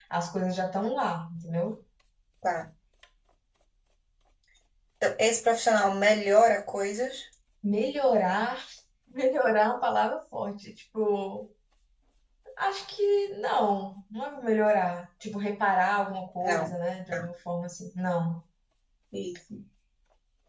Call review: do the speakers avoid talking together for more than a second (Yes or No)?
Yes